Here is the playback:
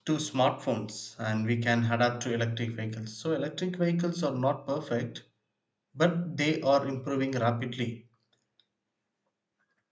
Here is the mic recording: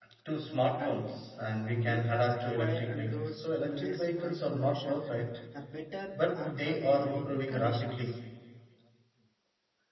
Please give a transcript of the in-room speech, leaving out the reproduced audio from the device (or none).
And Death of quiet and roads to less noise pollution, the better urban living conditions.